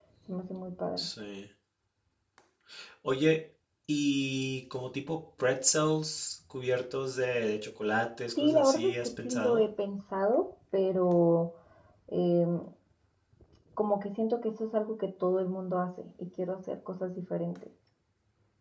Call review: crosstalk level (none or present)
present